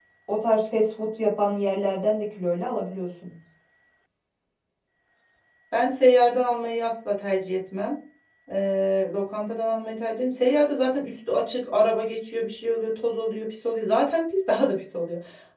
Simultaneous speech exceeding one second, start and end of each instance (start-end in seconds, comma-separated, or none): none